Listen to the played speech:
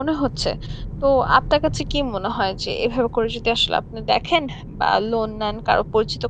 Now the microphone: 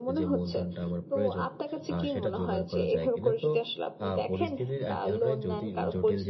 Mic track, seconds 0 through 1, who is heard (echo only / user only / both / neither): both